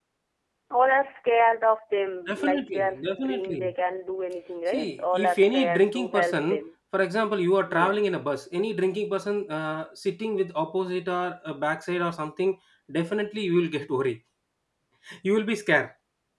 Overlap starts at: 2.3 s

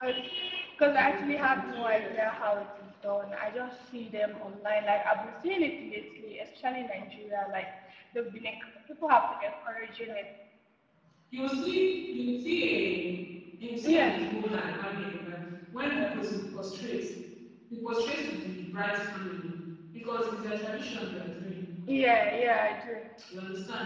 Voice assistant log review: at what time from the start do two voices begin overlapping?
0.9 s

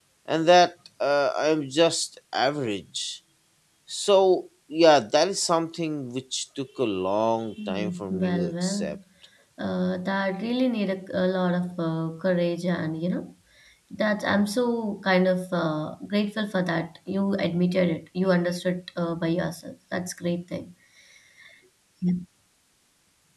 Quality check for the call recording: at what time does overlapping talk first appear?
7.6 s

